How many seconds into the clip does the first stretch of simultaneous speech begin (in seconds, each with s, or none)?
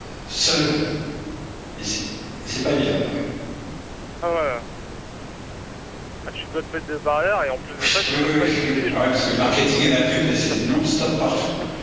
7.7 s